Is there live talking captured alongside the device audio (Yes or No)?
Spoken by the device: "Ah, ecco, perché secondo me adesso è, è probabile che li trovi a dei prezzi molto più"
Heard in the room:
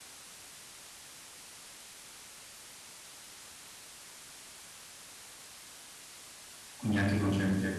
Yes